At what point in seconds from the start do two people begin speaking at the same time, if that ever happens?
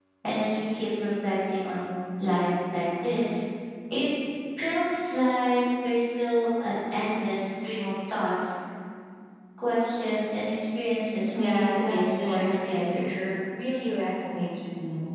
11 s

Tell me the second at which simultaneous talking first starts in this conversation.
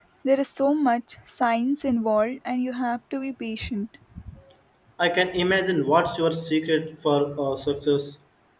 none

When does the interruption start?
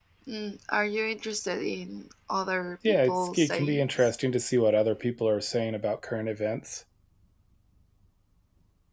3 s

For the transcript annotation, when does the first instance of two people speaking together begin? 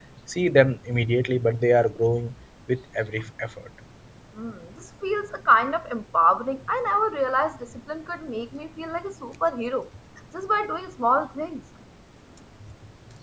none

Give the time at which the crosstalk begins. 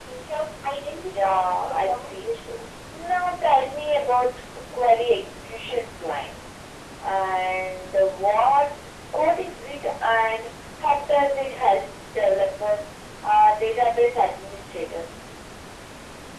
1 s

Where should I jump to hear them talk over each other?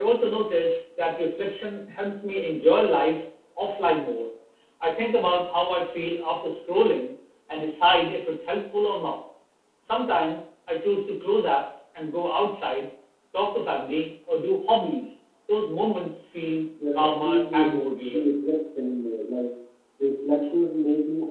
17 s

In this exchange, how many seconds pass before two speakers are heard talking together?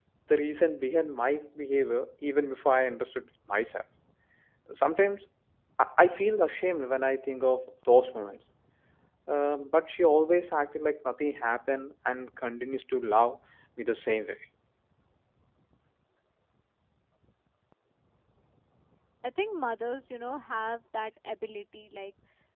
none

